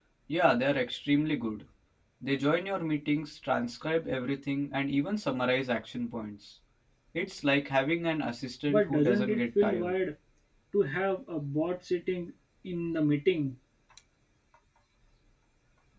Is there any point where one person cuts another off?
Yes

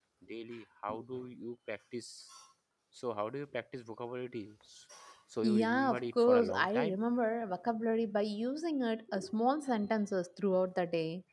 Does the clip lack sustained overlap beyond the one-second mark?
No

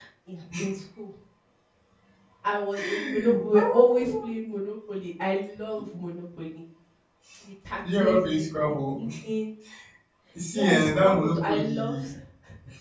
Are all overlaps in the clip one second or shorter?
No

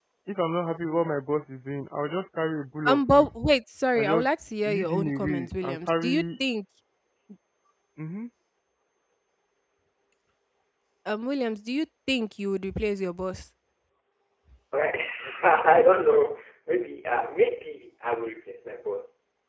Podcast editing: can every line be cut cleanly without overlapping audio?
No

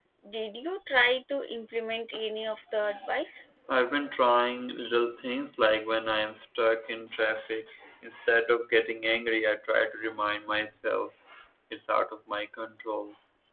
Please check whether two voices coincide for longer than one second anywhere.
No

